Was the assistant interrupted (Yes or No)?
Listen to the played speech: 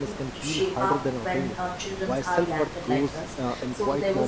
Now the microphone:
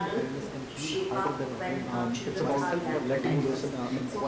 Yes